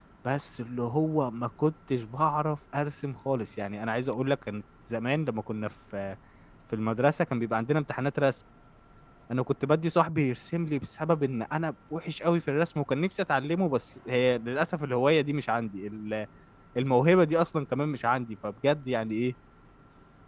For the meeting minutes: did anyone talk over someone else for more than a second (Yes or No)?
No